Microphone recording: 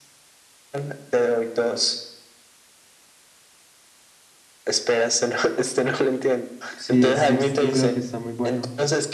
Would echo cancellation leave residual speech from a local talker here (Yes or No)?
Yes